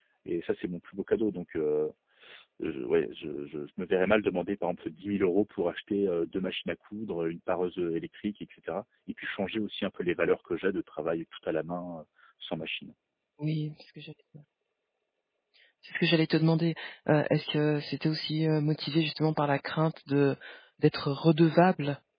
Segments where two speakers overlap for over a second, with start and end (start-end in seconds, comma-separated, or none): none